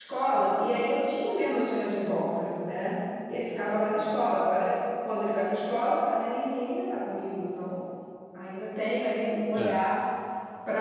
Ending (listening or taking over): listening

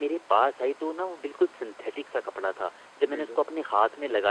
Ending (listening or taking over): listening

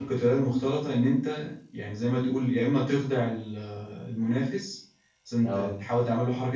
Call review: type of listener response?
listening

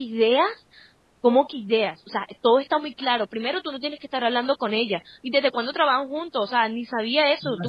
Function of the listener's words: taking over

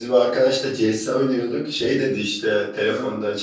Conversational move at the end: listening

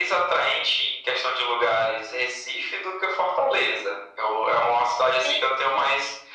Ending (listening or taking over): listening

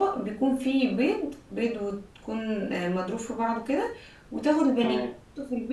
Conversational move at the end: listening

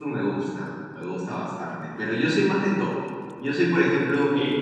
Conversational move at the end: listening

